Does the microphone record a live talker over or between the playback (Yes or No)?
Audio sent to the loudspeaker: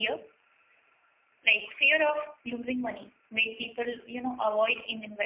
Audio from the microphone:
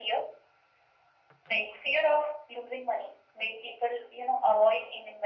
No